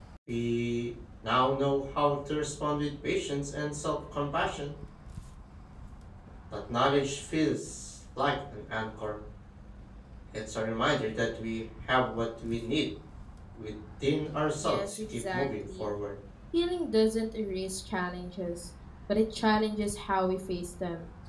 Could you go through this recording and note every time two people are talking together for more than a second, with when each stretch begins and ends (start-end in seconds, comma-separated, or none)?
14.6-16.0